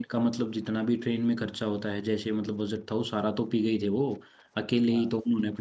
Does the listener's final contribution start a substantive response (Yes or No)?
No